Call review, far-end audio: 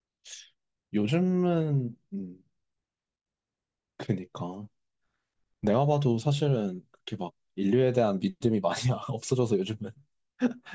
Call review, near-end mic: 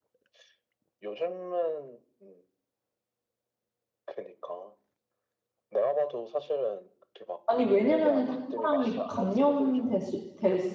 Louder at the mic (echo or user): user